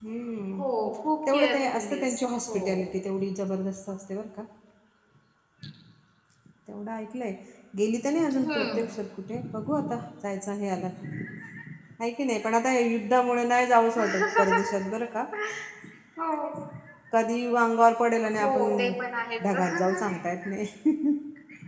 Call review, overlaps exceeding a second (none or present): present